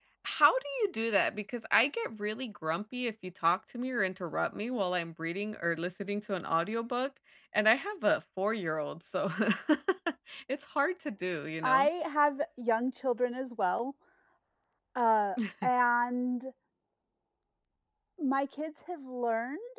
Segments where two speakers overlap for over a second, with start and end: none

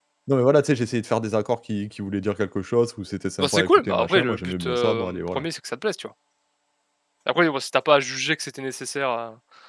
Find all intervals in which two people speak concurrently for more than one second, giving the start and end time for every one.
3.4-5.4

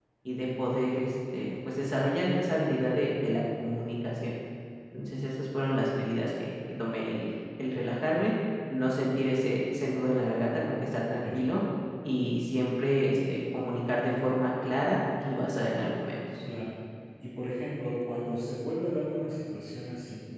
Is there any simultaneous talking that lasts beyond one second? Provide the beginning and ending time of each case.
none

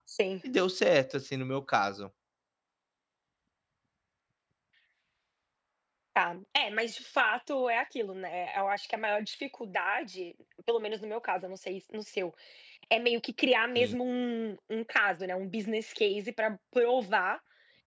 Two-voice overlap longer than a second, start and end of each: none

